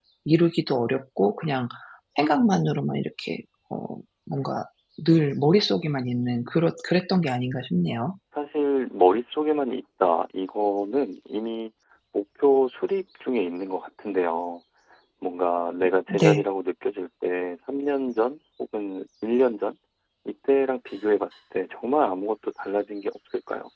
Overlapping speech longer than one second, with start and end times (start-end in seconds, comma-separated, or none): none